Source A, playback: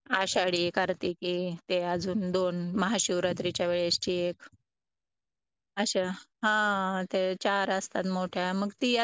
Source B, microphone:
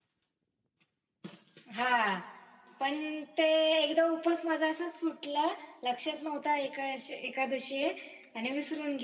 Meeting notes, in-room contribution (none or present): present